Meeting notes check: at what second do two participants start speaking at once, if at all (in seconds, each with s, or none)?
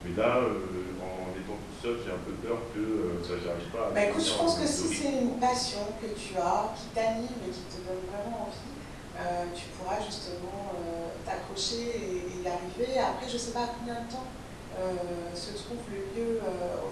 3.9 s